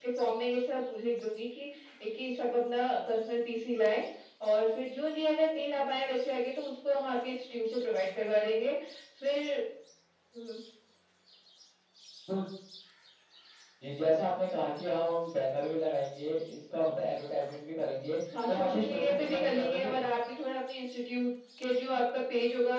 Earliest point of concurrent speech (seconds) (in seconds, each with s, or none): 18.3 s